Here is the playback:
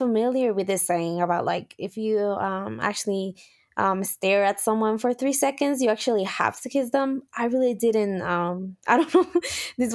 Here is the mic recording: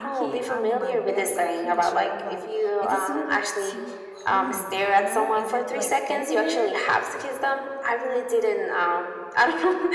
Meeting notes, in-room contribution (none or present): present